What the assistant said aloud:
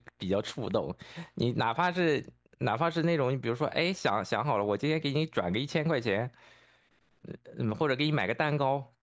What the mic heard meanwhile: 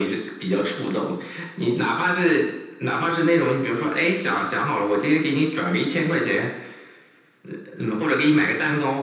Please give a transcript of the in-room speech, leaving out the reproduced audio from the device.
none

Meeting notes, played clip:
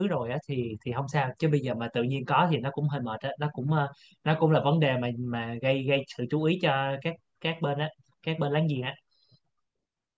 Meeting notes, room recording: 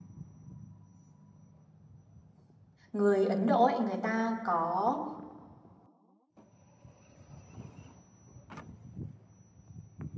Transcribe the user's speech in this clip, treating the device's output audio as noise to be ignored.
người Ấn Độ ấy, người ta có

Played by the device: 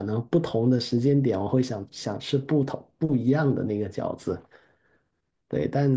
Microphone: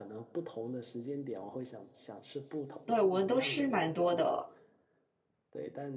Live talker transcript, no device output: 对，我们都吃蛮多的，

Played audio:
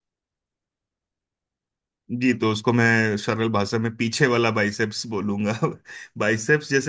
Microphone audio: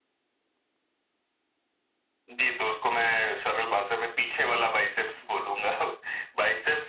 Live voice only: none

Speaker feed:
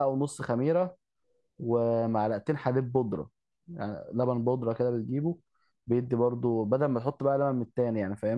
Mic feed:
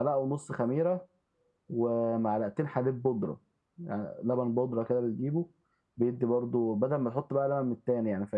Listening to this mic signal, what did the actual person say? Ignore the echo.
none

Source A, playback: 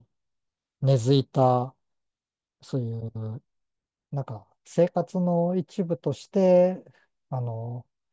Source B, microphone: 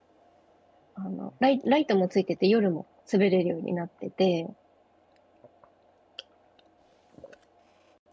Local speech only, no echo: あの、ライ、ライトもついてて夜も滑れるようになってて、

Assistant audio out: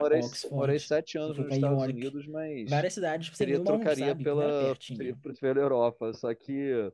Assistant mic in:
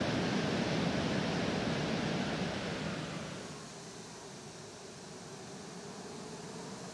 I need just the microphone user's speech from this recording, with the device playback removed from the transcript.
none

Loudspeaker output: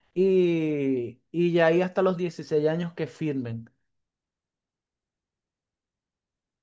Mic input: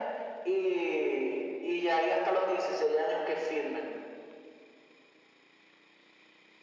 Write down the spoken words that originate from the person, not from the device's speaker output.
none

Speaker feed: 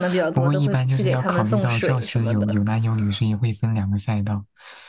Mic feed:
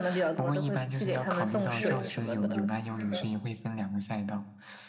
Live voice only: 哦，是的，是的。

